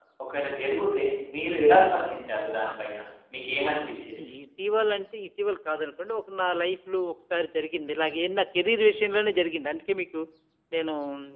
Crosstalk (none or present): none